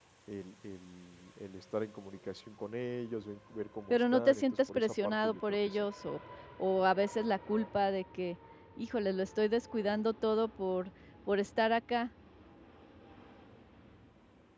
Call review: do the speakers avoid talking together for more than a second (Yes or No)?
No